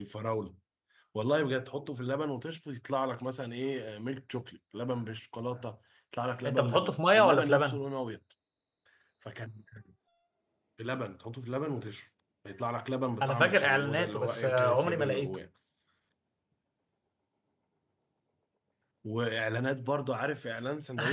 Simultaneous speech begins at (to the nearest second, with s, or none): 6 s